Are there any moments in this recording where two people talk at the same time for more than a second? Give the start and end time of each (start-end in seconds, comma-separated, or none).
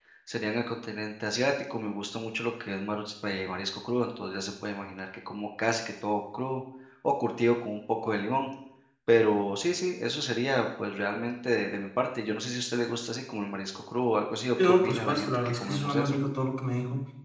14.6-16.2